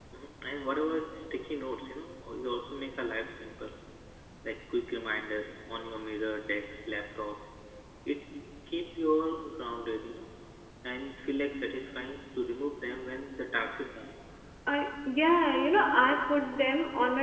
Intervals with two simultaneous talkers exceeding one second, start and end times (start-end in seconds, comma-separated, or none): none